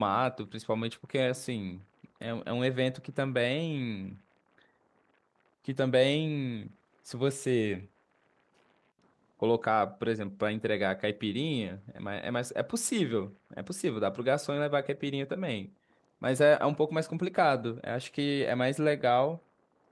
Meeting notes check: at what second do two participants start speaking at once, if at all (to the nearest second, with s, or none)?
none